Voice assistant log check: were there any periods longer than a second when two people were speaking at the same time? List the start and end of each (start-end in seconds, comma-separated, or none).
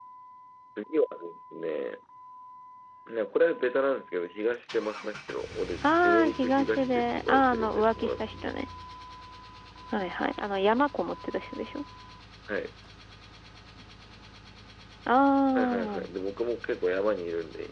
5.8-8.5